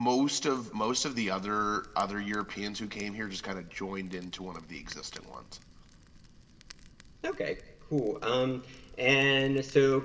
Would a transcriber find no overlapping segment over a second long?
Yes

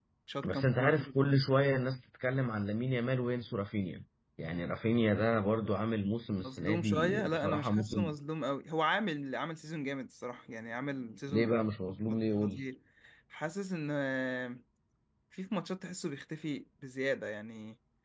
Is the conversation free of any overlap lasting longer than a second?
No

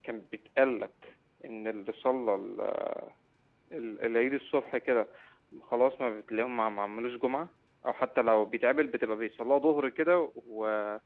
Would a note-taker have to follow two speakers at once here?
No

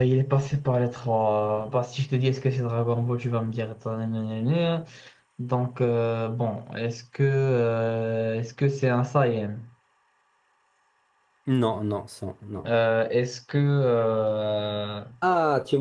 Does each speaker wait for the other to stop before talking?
Yes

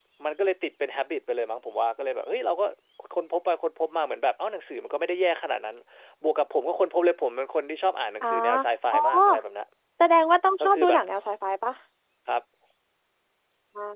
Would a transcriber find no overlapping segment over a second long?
Yes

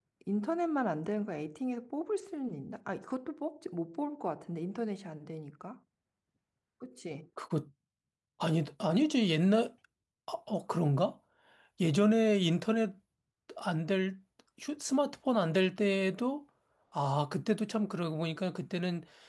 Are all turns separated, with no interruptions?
Yes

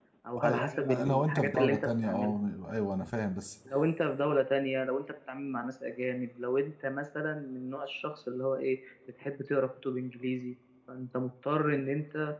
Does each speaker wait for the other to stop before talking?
No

